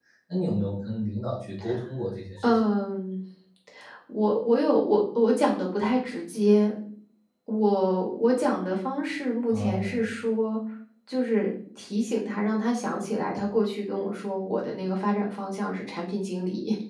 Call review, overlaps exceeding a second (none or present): none